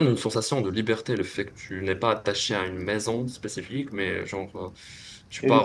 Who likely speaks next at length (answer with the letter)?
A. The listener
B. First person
A